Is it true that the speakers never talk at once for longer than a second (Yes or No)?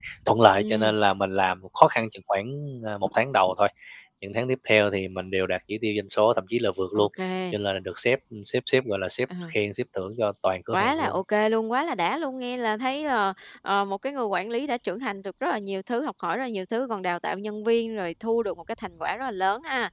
Yes